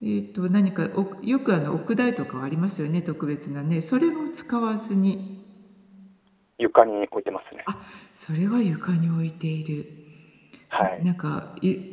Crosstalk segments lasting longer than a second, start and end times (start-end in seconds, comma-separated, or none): none